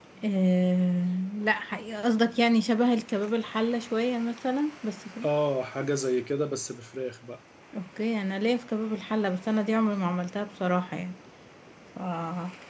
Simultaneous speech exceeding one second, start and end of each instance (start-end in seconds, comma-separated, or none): none